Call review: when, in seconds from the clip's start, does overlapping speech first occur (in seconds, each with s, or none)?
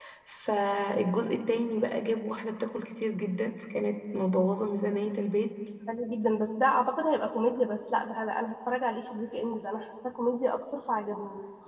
none